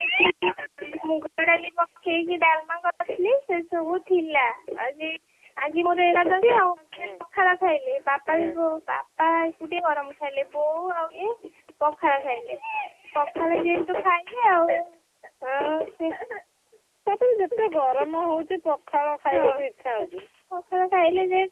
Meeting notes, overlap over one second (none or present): none